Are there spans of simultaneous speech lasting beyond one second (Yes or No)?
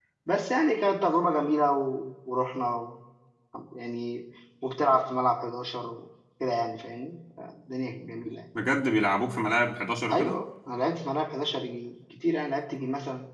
No